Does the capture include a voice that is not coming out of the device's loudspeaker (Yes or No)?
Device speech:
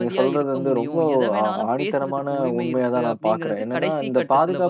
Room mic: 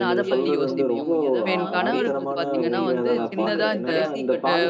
Yes